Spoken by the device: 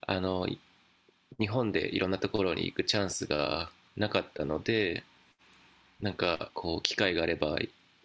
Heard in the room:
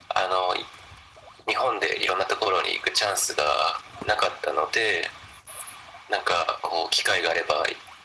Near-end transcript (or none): none